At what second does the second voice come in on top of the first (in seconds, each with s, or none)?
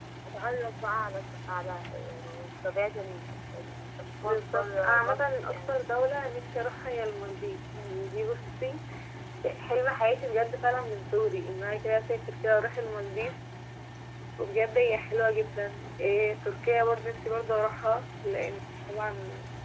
4.2 s